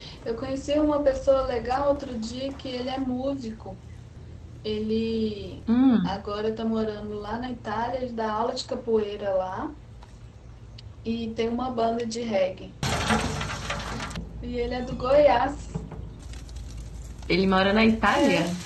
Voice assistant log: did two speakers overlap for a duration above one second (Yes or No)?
No